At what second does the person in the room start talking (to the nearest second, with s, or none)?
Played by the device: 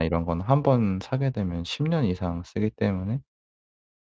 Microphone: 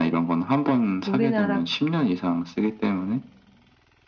1 s